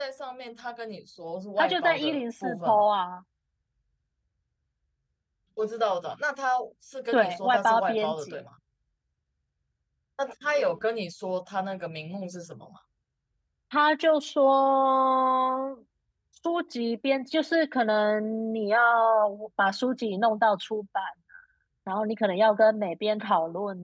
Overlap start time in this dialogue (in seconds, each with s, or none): 1.6 s